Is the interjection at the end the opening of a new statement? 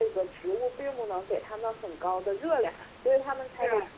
No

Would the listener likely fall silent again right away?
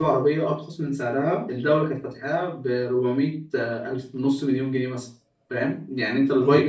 No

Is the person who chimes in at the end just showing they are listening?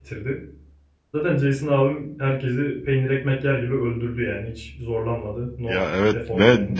No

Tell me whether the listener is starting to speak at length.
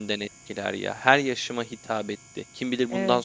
No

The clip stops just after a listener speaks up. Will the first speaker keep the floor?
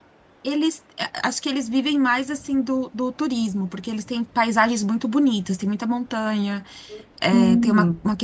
Yes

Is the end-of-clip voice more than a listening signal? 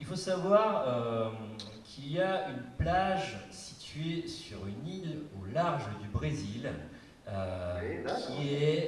No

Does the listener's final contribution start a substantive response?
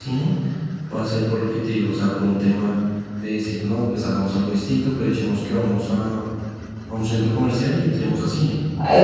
Yes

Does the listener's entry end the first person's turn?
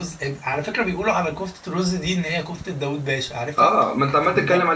Yes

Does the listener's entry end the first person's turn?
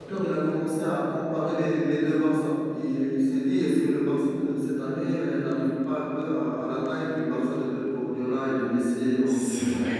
Yes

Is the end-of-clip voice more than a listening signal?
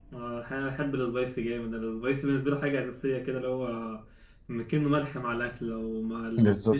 Yes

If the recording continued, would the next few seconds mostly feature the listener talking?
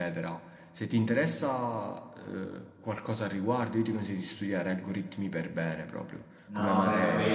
Yes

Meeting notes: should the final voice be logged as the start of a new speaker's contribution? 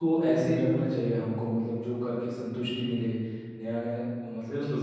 No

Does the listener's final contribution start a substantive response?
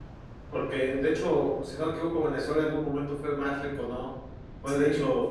No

